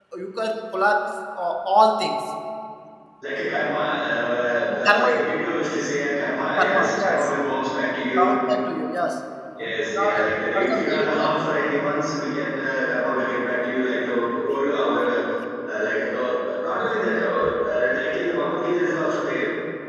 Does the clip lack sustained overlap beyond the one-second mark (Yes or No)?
No